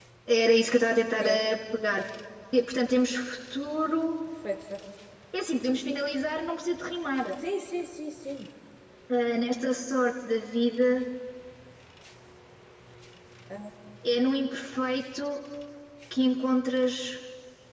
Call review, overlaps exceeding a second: none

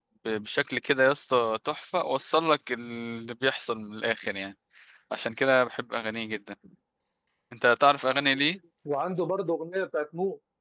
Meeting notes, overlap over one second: none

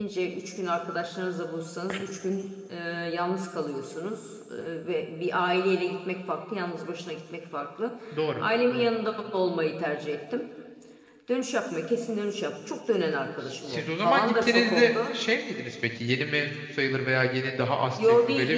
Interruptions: present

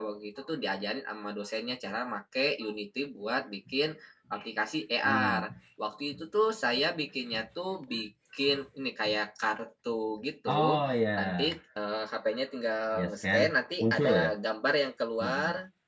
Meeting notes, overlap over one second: none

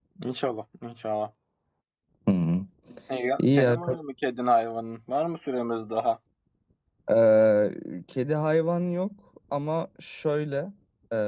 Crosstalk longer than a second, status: none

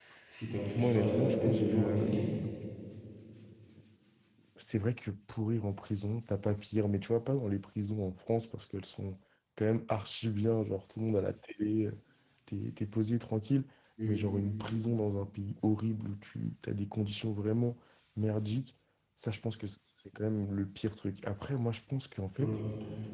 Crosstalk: present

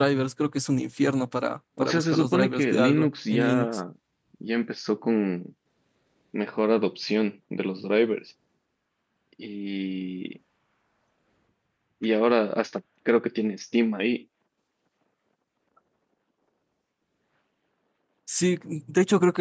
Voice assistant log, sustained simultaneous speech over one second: present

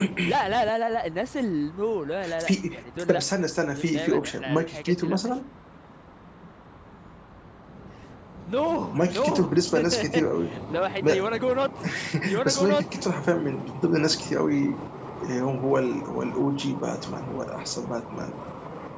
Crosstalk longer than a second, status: present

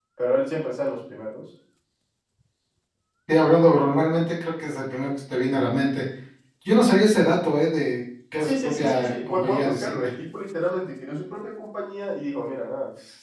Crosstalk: present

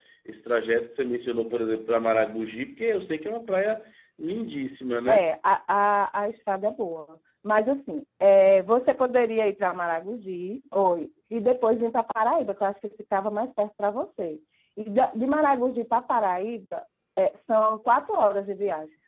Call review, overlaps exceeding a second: none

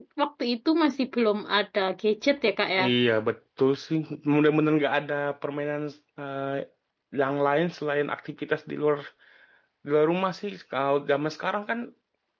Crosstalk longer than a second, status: none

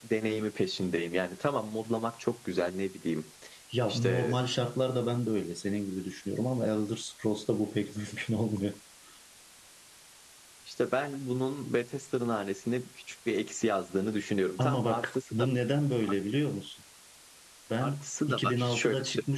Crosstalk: present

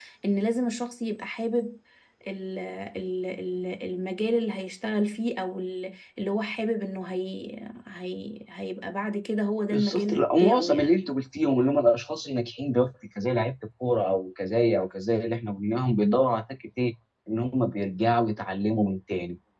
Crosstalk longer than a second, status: present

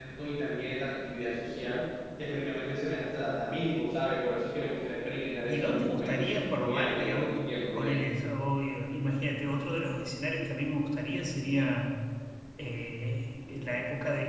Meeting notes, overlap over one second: present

